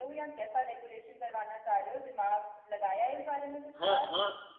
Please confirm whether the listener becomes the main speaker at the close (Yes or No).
Yes